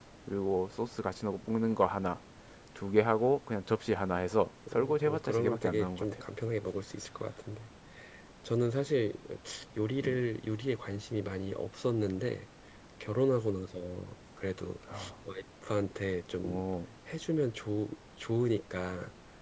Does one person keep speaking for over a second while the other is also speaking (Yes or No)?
Yes